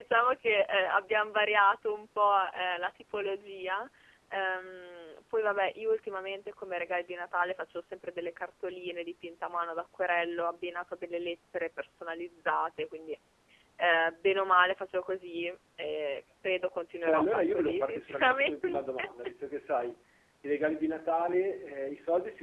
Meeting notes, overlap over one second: present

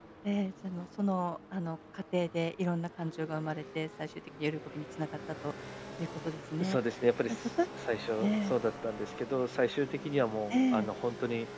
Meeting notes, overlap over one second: none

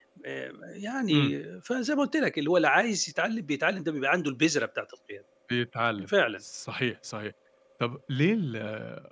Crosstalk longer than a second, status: none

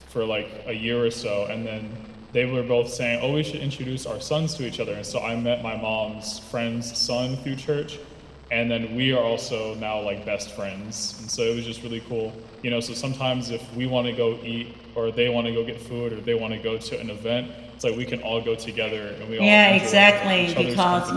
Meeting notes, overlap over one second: present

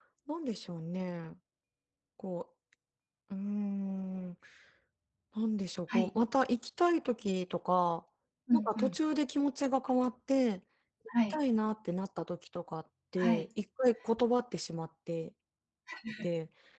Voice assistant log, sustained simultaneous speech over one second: none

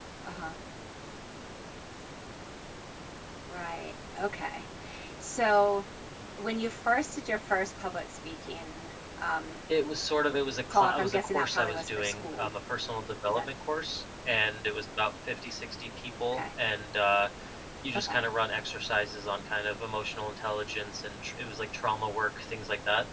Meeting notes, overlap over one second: present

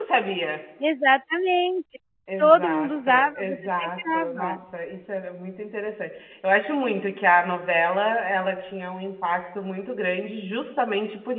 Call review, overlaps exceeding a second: present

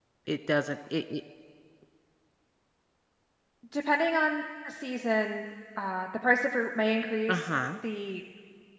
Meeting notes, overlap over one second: none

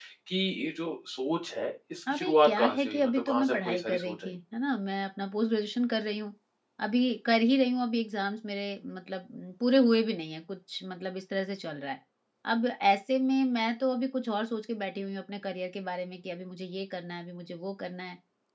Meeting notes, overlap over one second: present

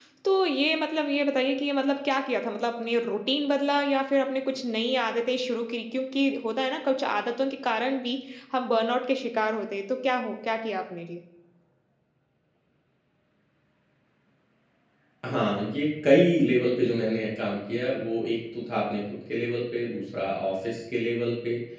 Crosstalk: none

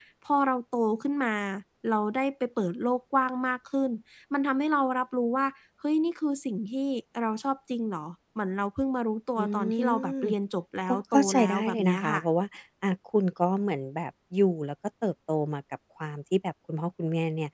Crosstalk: present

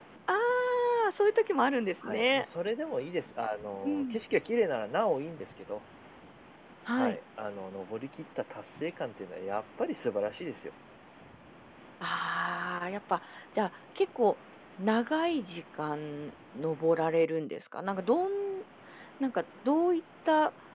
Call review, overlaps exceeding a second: none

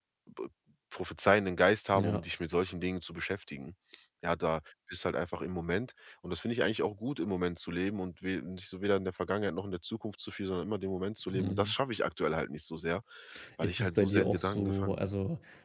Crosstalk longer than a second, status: present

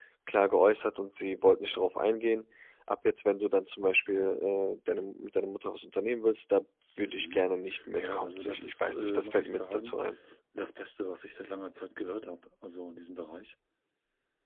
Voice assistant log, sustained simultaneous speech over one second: present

